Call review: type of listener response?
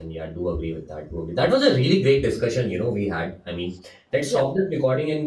listening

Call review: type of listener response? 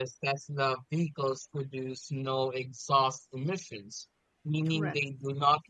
listening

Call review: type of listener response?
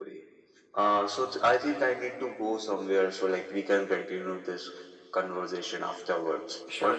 taking over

